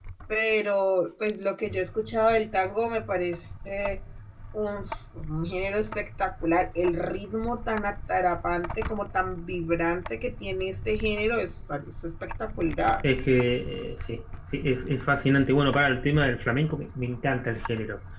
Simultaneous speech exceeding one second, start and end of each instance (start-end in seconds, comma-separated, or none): none